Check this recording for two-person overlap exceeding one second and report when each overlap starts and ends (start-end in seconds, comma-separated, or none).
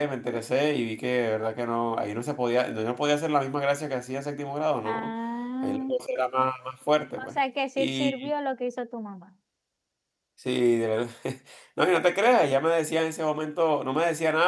none